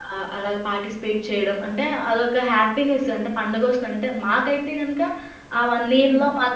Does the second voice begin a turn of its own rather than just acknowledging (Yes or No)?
No